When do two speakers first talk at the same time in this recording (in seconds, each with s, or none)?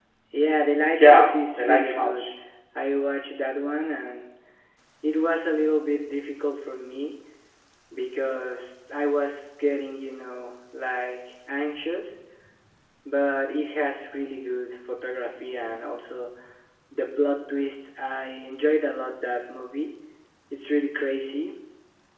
0.9 s